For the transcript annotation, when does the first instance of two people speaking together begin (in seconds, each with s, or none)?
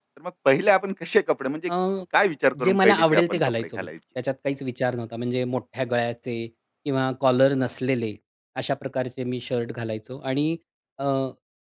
2.6 s